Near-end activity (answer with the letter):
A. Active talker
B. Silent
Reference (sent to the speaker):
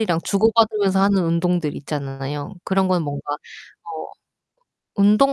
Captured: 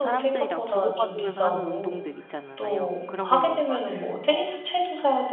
A